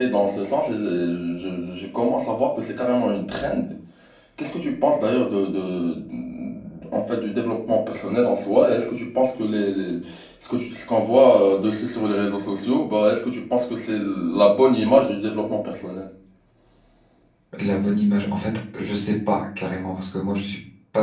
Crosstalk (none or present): none